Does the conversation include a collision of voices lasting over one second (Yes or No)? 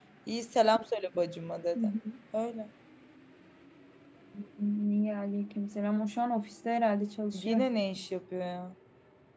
No